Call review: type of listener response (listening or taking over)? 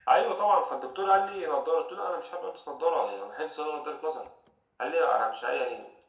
listening